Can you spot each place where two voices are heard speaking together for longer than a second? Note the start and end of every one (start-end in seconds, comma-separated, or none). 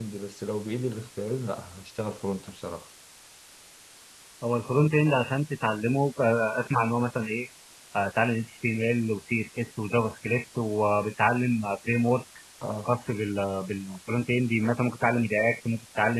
none